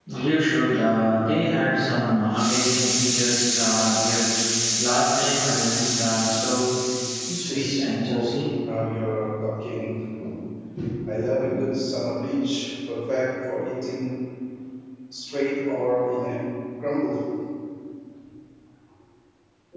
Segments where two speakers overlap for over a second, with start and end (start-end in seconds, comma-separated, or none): 7.3-8.5